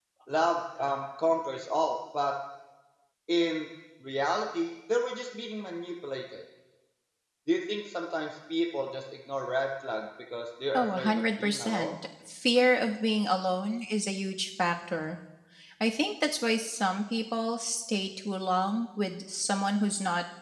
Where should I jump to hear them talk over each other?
11 s

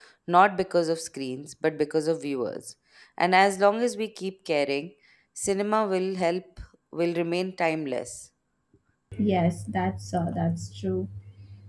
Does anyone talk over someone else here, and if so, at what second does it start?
none

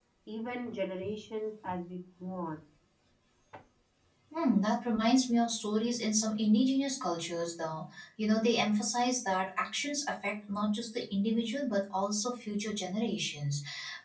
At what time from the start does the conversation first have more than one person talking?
none

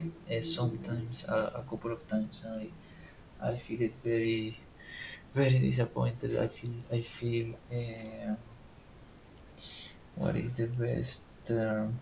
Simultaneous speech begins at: none

